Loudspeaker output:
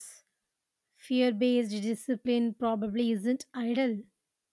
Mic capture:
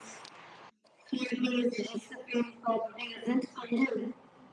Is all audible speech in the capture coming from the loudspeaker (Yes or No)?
Yes